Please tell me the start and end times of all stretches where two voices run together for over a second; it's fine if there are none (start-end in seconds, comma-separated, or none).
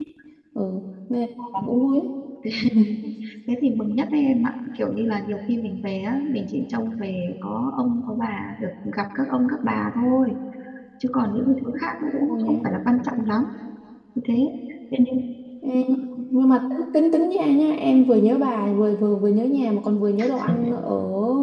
none